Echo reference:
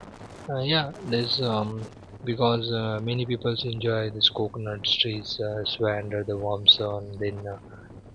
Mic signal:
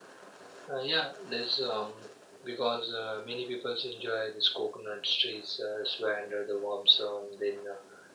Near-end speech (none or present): none